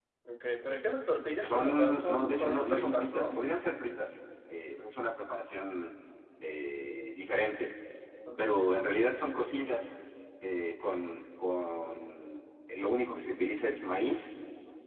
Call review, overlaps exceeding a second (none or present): present